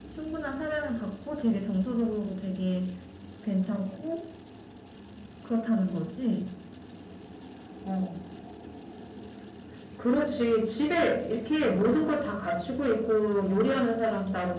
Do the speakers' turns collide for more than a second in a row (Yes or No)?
No